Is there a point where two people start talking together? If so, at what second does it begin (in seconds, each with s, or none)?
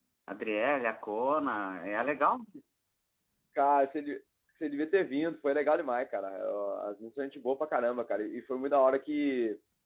none